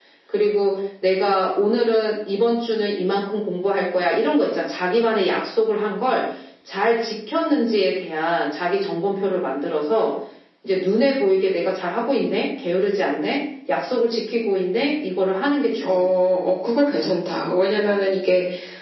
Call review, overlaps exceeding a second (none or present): none